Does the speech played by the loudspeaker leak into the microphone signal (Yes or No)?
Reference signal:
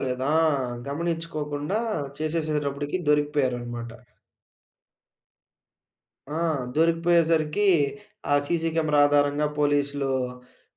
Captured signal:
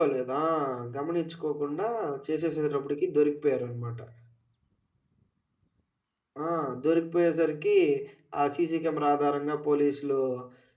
Yes